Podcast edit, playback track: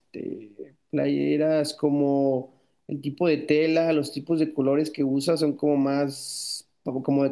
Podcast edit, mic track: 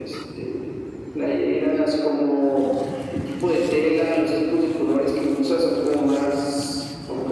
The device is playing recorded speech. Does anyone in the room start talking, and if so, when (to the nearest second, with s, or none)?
none